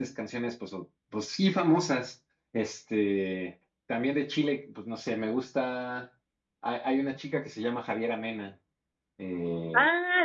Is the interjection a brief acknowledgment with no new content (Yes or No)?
No